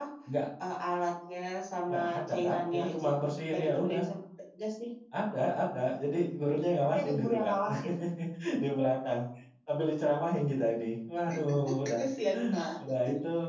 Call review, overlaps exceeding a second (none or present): present